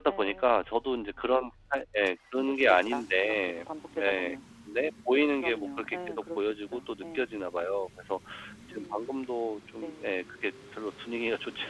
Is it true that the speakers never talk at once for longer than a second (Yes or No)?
No